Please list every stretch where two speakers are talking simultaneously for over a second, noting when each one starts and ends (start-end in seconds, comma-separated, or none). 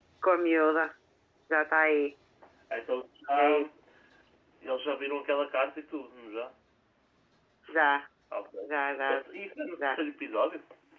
none